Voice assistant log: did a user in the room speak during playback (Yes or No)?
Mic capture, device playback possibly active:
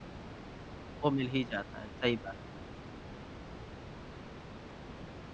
Yes